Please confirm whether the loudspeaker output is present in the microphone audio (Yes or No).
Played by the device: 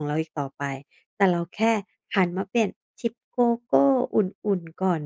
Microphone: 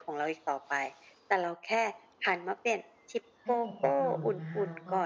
Yes